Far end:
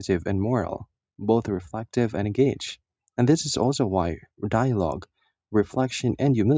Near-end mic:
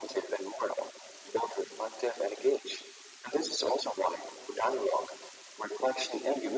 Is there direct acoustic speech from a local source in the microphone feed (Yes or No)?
No